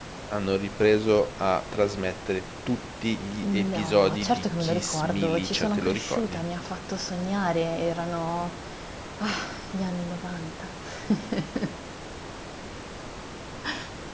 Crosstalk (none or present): present